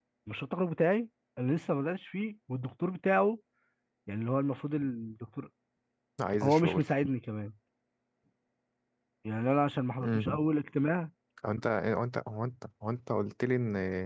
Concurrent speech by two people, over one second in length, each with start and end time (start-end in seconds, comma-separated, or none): none